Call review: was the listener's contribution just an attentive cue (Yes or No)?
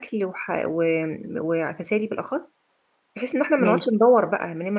Yes